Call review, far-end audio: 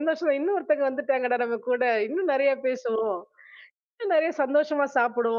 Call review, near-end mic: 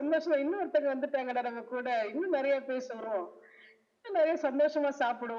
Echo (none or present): present